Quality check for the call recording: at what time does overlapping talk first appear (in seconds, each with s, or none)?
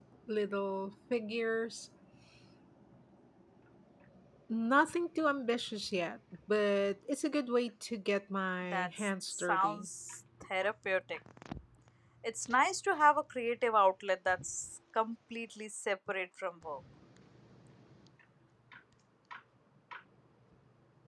8.6 s